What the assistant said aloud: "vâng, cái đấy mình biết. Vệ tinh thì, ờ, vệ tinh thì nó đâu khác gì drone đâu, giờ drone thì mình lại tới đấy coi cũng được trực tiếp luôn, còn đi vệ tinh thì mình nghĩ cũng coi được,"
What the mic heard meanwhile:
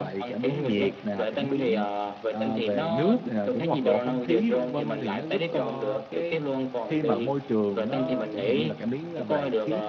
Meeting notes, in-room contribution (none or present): present